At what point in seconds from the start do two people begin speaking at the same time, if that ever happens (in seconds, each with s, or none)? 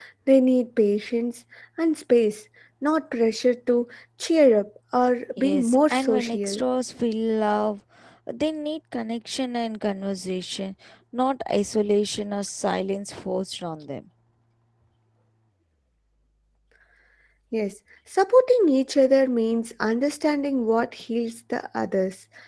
5.4 s